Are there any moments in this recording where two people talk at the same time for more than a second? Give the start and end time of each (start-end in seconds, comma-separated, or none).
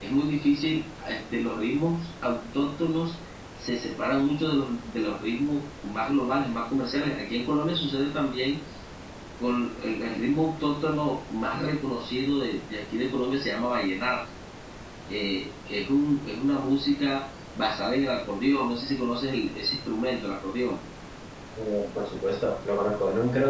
none